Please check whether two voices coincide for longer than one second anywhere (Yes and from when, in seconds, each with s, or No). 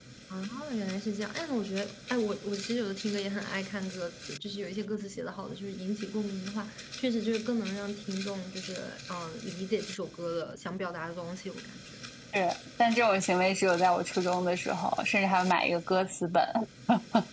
No